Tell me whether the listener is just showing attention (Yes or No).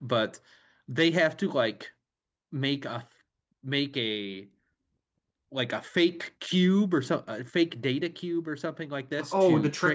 No